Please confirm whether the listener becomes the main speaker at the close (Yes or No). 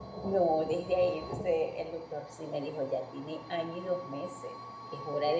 No